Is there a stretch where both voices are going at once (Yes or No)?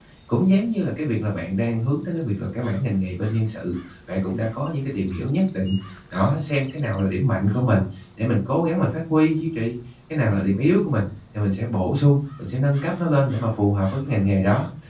No